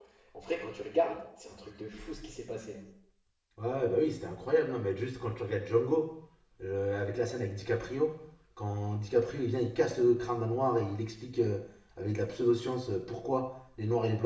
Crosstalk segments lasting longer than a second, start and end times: none

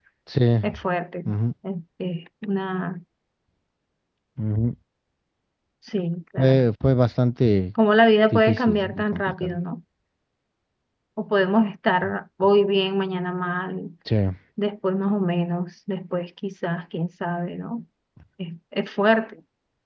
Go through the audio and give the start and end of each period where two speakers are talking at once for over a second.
8.3-9.6

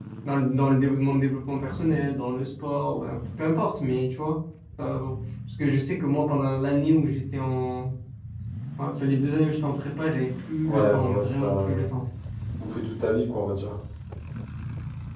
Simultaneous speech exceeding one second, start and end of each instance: 10.7-11.9

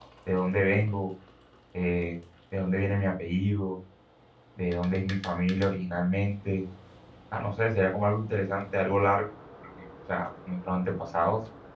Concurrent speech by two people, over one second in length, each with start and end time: none

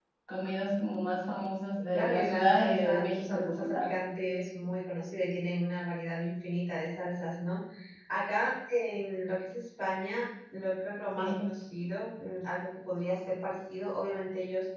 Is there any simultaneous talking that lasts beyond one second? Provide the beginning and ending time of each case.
1.9-3.9

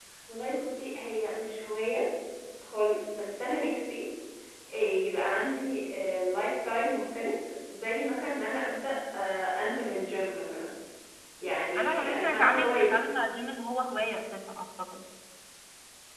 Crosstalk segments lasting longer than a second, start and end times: 11.8-13.0

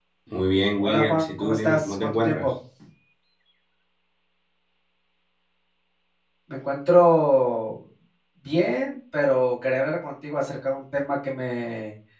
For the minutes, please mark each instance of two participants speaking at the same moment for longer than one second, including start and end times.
0.8-2.4

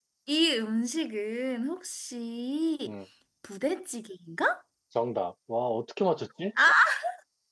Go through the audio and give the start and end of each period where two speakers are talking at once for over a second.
none

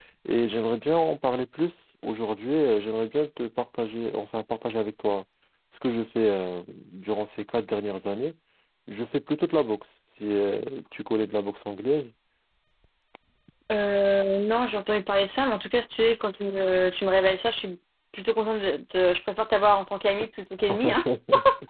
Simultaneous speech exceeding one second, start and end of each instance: none

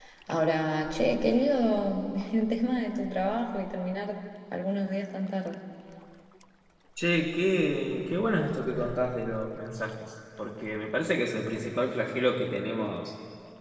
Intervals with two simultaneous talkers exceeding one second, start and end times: none

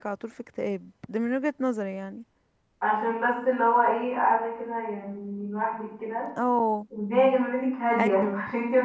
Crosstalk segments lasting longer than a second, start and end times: none

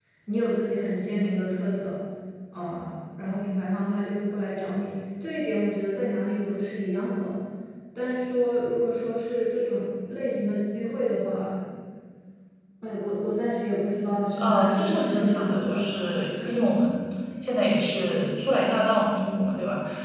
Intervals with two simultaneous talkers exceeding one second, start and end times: 14.4-15.8

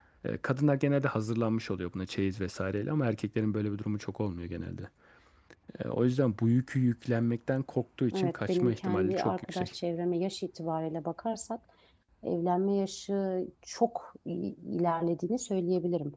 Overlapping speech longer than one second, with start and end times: 8.2-9.7

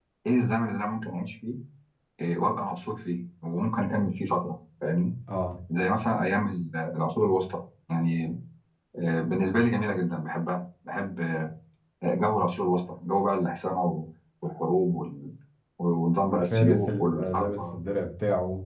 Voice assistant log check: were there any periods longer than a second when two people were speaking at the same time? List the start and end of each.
16.3-17.8

